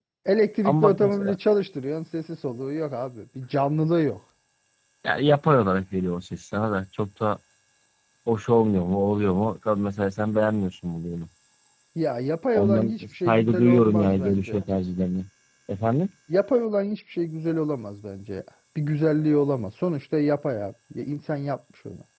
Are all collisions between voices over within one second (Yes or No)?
No